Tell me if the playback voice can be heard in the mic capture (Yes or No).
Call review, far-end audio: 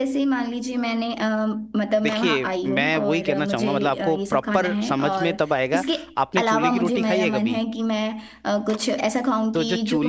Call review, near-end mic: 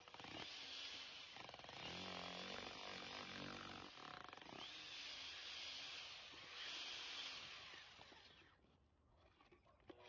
No